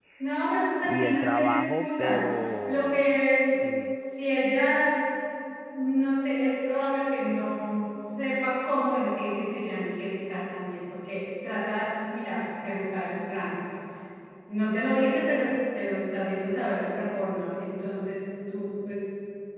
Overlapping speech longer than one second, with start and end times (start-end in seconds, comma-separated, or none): 0.8-2.2